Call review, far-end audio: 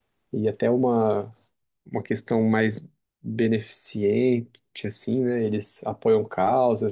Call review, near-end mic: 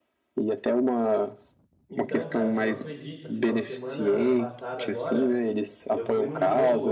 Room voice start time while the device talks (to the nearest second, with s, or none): 2 s